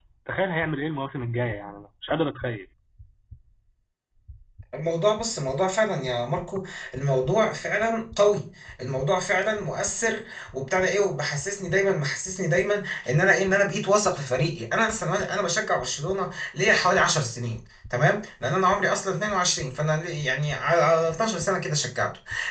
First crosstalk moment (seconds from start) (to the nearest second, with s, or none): none